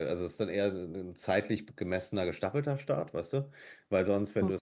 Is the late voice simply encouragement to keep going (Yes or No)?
Yes